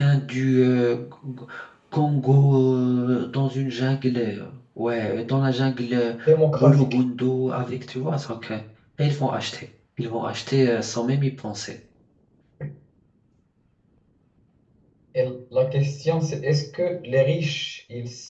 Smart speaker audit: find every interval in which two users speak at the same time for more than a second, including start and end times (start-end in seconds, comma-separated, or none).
none